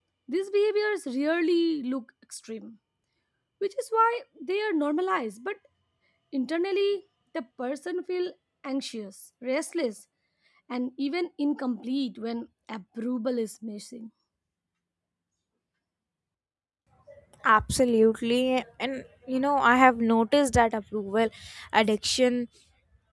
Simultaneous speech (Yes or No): No